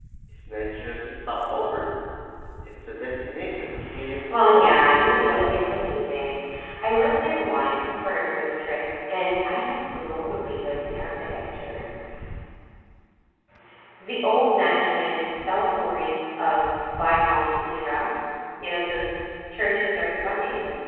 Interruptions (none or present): present